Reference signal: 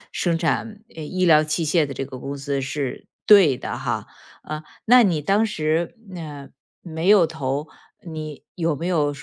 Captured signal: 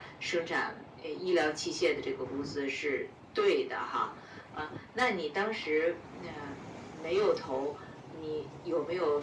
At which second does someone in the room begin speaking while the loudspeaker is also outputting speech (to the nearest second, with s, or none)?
none